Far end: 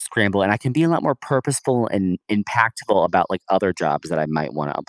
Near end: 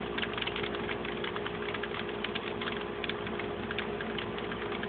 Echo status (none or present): none